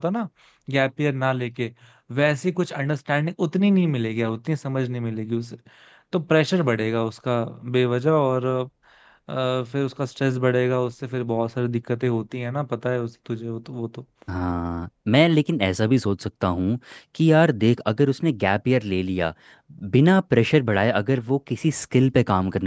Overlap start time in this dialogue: none

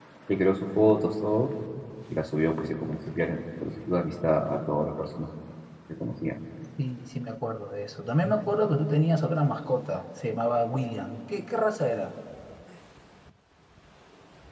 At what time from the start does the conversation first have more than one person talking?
none

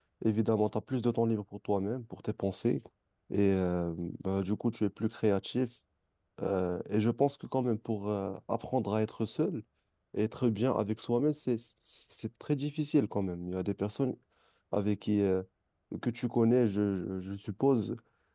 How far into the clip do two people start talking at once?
none

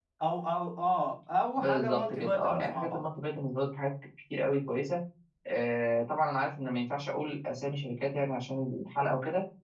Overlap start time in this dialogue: 1.6 s

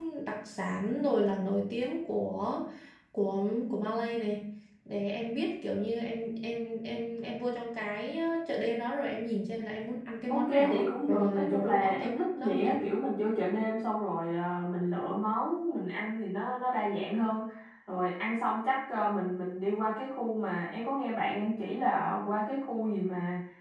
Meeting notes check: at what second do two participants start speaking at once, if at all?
10.3 s

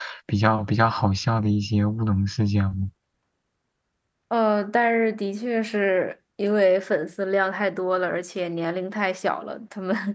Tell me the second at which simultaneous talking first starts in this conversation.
none

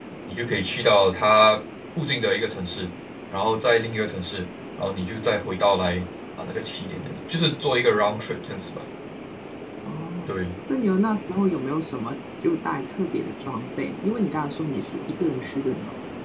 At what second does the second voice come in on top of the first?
none

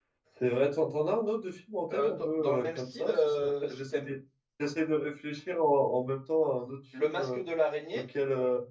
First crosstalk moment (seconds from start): 1.9 s

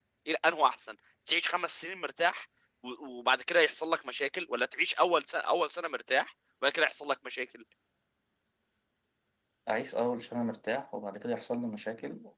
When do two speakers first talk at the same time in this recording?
none

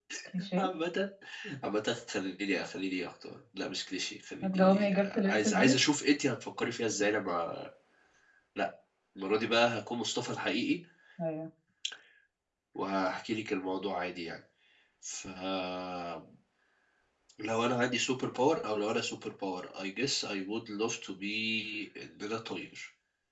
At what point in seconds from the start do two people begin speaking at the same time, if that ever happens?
4.4 s

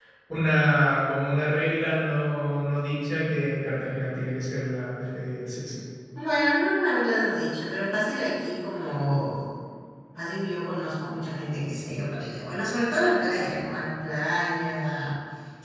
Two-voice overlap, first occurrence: none

